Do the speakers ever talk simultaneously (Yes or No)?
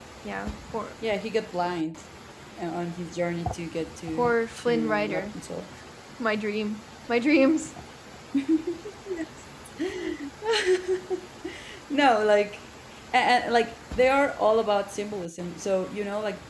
Yes